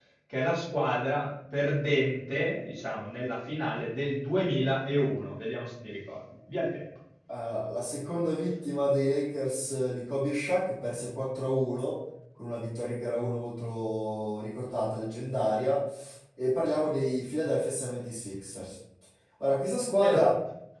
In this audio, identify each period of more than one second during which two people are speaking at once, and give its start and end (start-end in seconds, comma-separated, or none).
none